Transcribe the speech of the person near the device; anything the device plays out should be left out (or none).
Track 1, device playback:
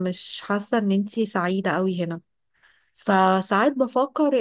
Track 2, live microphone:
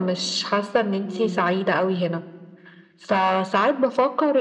مم.